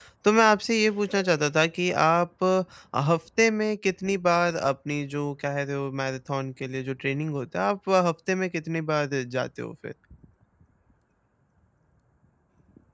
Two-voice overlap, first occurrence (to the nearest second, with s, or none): none